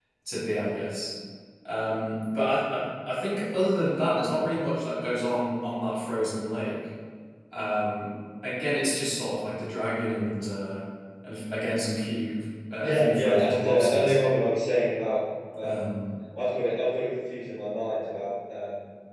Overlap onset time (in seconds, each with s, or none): 12.8 s